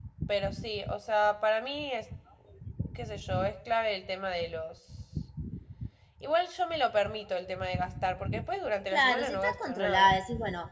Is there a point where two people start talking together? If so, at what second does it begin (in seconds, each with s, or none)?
8.9 s